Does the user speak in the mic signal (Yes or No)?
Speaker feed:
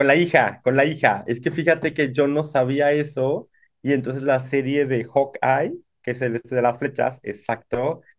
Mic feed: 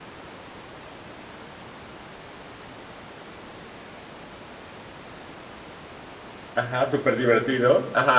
Yes